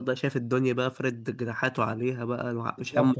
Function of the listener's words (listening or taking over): taking over